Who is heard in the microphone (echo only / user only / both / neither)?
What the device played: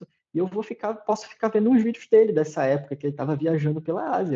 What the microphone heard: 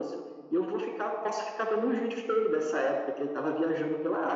echo only